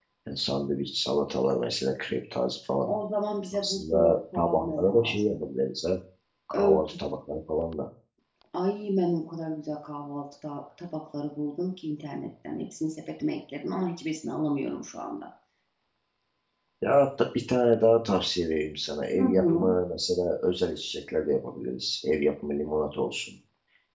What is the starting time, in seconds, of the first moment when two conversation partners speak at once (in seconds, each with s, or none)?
3.5 s